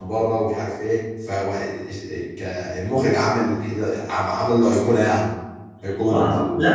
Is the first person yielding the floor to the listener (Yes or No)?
Yes